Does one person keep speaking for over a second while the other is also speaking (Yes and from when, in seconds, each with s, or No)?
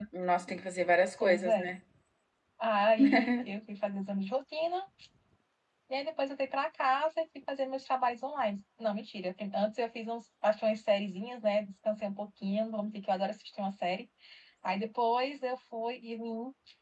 No